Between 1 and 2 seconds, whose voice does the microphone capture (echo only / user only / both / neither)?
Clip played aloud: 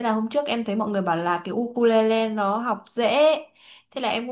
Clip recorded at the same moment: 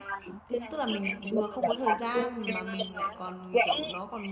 both